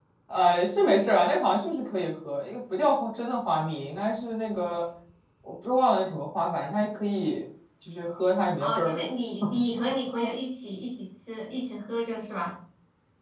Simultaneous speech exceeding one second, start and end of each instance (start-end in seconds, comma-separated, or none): none